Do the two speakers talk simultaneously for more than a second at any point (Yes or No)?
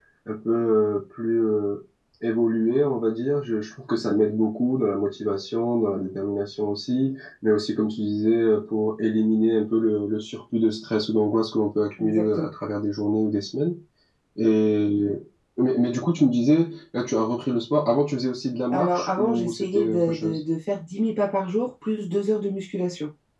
Yes